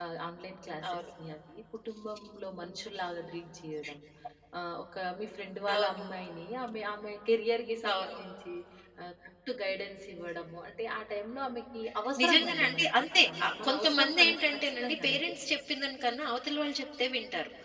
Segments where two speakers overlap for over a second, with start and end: 12.2-15.3

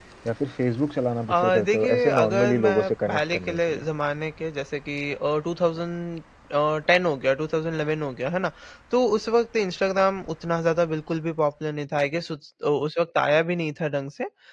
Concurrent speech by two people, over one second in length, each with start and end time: 1.3-3.9

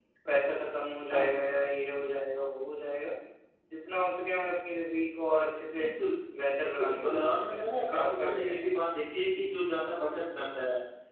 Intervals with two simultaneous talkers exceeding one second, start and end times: 6.7-8.7

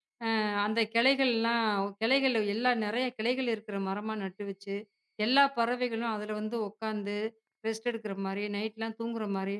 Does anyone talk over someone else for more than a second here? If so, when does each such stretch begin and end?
none

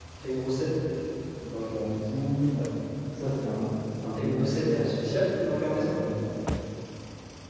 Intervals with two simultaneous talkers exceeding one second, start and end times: 4.1-5.9

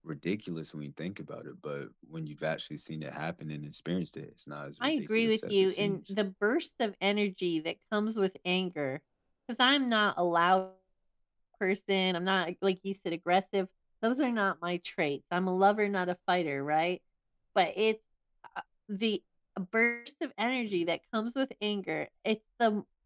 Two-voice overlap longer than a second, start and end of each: 4.8-6.1

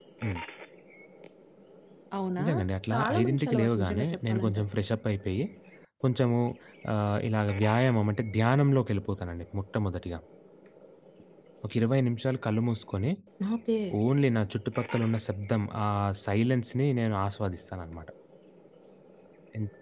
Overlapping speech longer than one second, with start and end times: 2.9-4.7

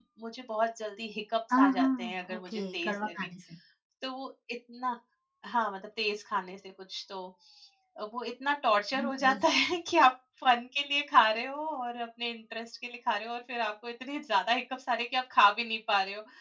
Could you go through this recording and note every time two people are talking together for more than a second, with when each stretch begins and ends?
1.6-3.1

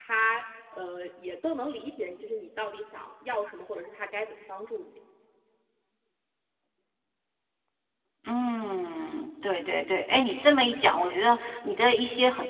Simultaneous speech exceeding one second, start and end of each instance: none

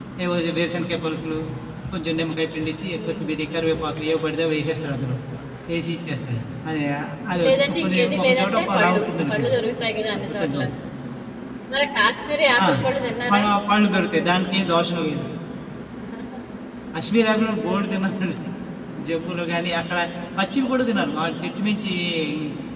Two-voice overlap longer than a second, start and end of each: 7.4-9.6

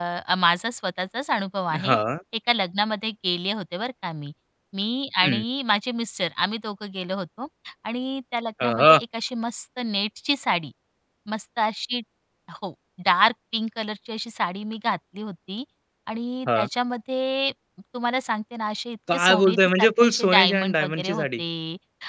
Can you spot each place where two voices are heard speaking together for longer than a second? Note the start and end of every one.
19.1-21.3

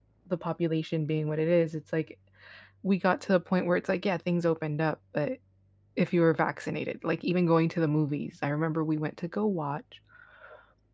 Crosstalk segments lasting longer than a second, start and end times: none

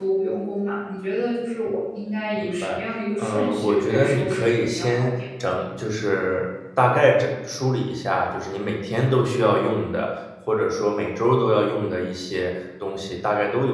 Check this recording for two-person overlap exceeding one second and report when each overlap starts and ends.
3.2-5.2

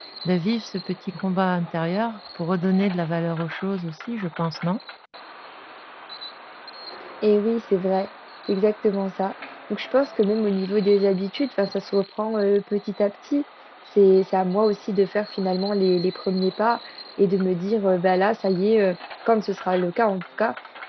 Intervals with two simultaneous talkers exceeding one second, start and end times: none

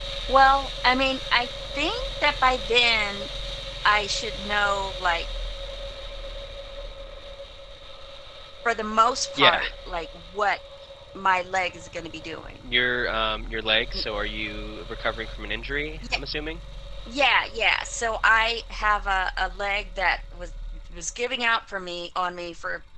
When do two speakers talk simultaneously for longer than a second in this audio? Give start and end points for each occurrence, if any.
none

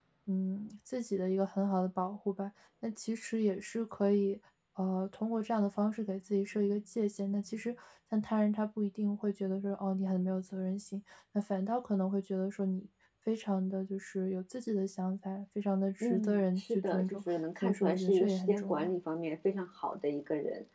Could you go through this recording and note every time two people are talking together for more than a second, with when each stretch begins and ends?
16.0-18.9

